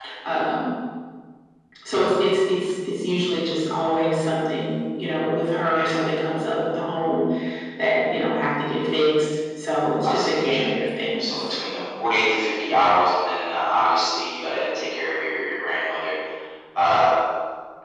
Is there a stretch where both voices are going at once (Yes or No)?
Yes